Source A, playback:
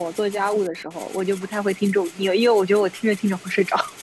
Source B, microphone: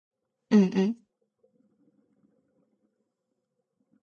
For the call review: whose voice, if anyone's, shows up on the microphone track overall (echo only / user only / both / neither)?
user only